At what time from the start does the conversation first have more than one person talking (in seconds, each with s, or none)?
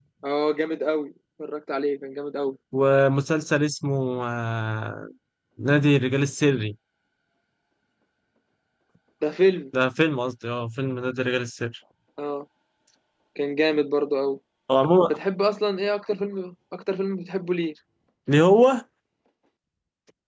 none